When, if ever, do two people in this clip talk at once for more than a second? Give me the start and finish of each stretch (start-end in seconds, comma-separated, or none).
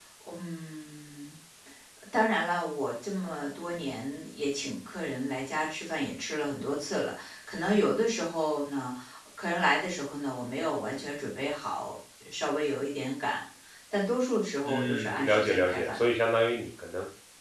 14.6-16.1